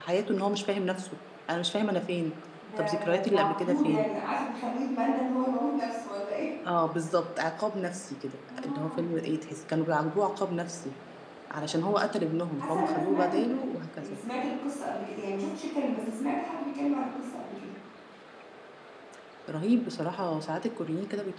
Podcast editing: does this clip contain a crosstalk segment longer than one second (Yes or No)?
Yes